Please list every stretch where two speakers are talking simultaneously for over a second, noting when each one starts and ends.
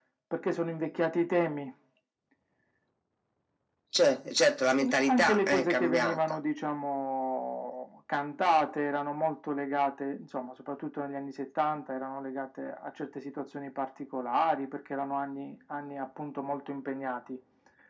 4.8-6.2

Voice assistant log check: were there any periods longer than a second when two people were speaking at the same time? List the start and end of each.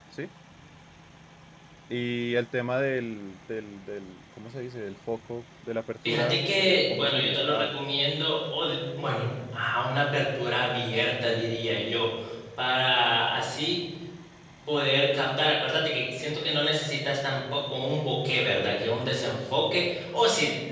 6.0-7.7

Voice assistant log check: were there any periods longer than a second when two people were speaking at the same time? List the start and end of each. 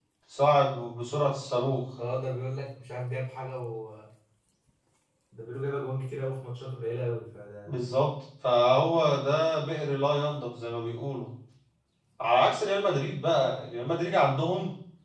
none

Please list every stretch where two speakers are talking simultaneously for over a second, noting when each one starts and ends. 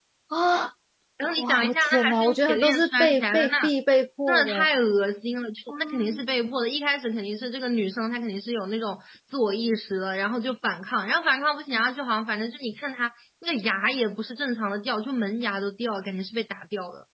1.4-3.7

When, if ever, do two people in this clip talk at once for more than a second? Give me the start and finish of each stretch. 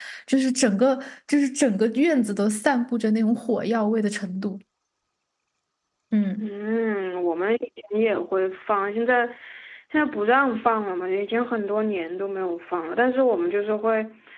none

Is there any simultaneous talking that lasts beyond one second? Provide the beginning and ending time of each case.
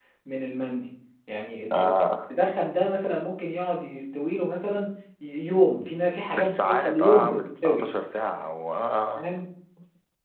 6.3-7.8

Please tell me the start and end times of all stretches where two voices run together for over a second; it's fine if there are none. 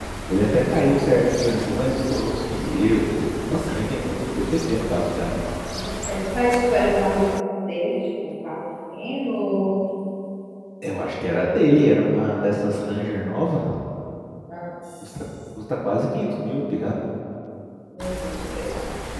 none

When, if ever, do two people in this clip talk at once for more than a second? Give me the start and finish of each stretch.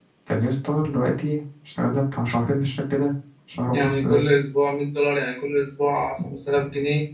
none

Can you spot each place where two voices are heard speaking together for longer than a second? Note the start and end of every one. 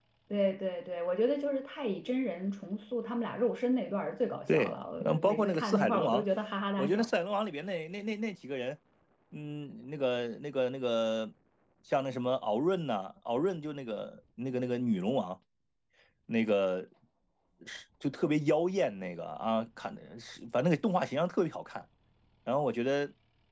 4.5-6.2

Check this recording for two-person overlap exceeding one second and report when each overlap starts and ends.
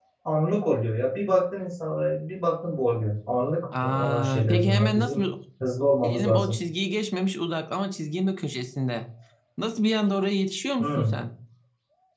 3.8-5.2

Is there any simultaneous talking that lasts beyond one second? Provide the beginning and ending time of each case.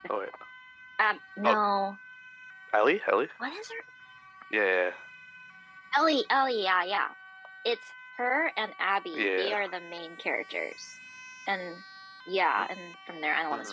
none

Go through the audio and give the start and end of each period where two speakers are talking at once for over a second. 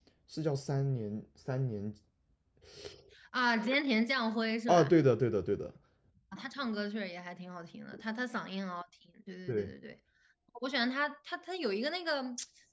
none

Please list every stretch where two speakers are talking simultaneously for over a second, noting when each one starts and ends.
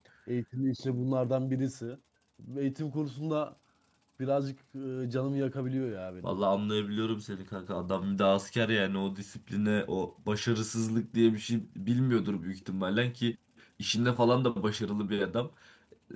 none

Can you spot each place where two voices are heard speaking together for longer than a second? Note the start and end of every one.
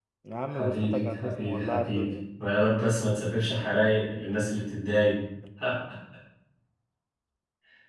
0.5-2.0

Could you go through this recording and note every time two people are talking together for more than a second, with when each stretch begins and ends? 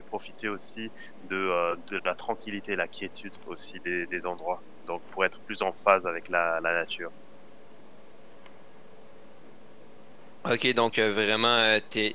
none

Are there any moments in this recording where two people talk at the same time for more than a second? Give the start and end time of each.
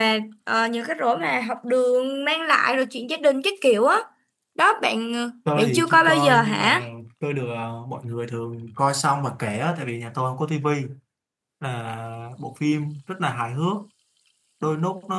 5.6-6.8

